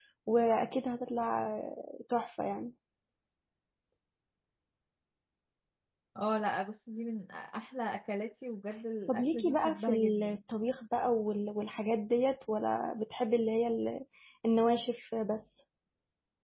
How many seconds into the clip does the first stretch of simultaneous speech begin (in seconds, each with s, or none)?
9.1 s